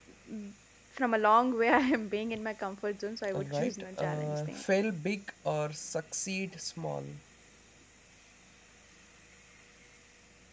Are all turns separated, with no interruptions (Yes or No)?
No